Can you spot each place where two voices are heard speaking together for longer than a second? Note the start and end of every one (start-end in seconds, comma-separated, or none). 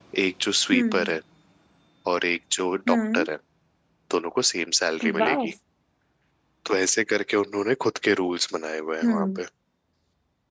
none